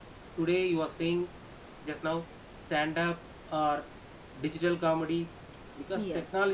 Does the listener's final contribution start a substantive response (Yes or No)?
No